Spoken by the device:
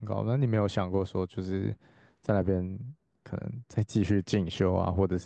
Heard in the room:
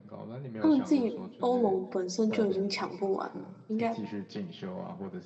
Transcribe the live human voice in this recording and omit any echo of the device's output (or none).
他们自己欧盟本身就已经抢不完了，应该